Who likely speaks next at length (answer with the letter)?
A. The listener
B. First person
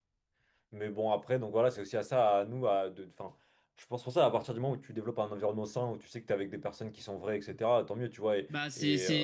A